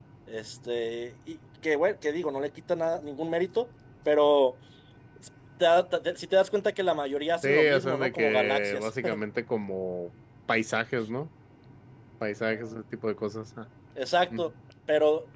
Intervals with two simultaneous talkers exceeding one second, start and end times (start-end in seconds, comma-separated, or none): 7.4-8.9